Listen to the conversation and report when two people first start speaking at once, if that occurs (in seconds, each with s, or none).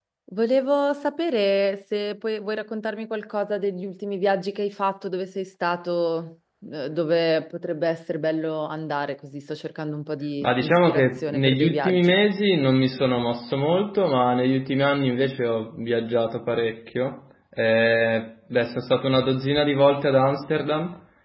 10.4 s